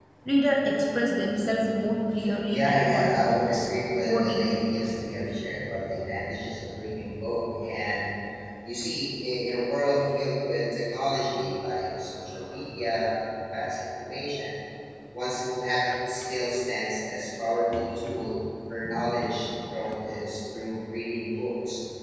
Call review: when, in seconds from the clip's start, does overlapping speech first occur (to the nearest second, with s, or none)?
2 s